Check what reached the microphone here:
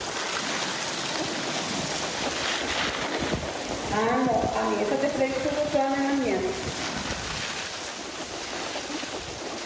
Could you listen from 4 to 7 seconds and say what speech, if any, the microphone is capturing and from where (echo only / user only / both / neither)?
user only